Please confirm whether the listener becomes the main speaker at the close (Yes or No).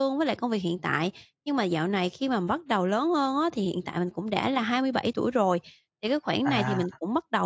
No